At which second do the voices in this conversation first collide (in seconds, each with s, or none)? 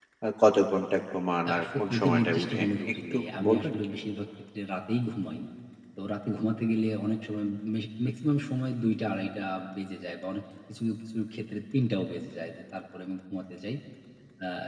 1.4 s